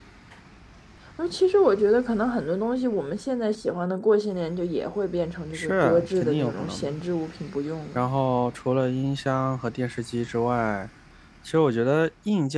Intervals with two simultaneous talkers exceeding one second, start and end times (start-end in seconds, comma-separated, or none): 5.5-7.0